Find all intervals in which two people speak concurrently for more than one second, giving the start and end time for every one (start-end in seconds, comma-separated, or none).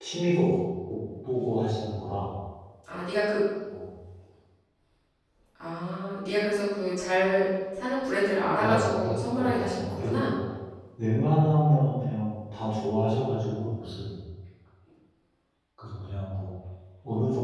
8.6-10.3